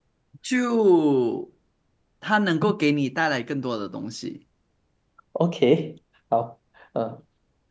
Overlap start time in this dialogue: none

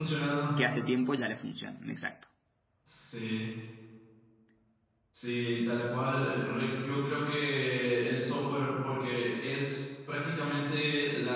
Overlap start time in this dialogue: none

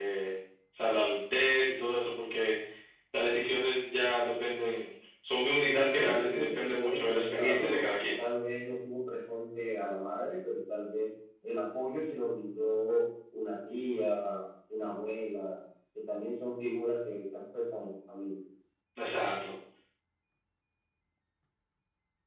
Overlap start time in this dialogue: 5.6 s

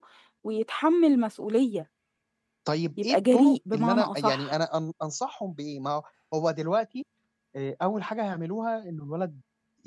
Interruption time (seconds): 3.0 s

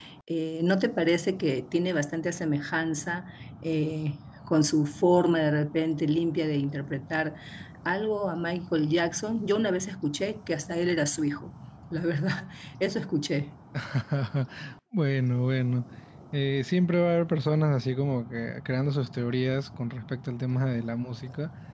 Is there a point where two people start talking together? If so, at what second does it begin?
none

